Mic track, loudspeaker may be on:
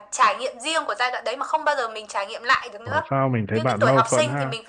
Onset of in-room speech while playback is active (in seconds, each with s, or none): 2.8 s